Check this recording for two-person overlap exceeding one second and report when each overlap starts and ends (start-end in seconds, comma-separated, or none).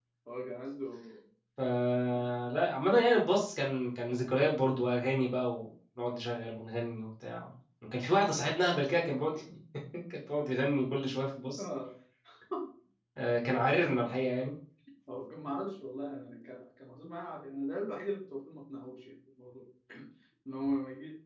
none